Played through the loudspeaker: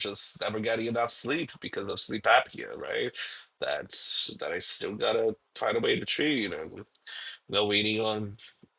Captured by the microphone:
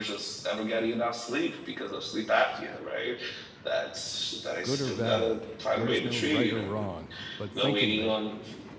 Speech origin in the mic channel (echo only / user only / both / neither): both